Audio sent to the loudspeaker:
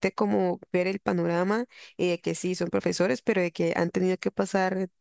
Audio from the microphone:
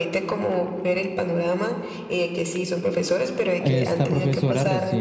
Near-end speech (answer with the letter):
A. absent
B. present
B